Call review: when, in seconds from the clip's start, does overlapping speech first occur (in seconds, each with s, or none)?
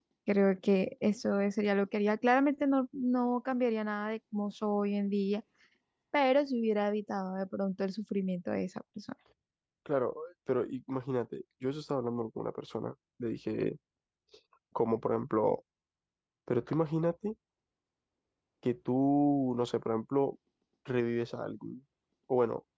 none